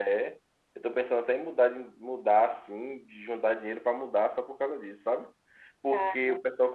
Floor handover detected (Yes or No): No